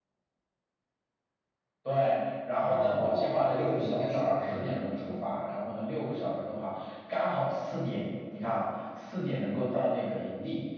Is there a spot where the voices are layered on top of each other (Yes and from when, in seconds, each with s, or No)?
Yes, from 2.6 s